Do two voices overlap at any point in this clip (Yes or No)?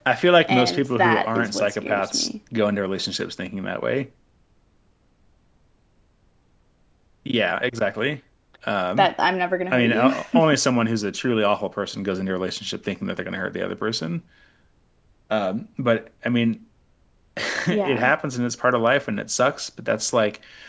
Yes